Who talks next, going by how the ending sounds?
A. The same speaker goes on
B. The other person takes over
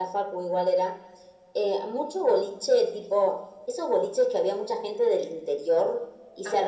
A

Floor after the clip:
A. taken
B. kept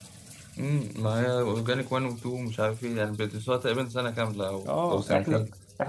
A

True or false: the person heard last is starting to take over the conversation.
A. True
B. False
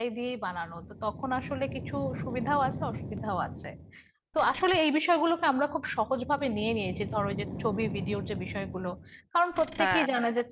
B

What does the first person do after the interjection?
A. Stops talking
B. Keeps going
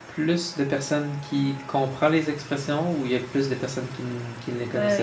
A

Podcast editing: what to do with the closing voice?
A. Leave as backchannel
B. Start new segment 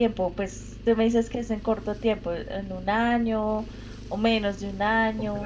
B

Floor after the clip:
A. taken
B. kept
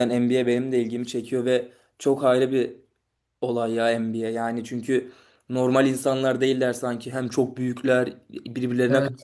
A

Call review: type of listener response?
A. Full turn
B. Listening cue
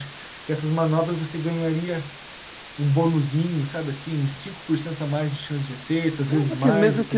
A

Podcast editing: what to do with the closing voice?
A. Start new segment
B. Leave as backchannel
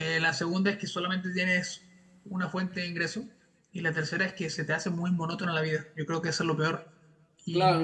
A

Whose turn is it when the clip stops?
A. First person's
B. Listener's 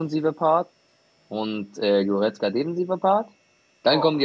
A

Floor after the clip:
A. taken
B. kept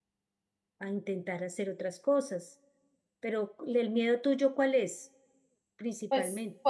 A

